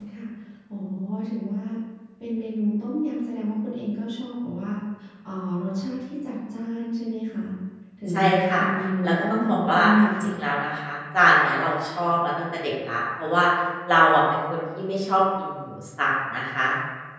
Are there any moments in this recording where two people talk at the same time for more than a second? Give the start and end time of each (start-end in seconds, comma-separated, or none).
9.0-10.3